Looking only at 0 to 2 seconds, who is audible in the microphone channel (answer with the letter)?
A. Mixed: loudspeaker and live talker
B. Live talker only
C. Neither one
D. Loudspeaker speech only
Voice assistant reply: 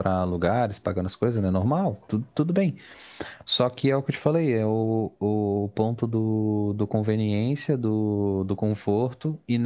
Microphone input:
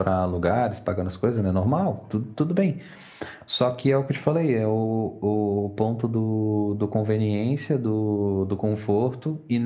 D